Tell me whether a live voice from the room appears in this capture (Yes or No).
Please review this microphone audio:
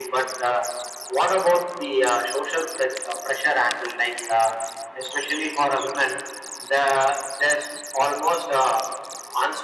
No